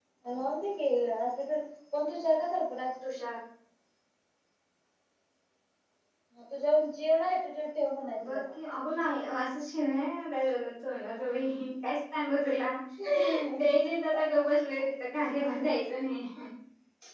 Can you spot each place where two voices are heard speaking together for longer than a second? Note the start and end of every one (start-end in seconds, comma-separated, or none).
none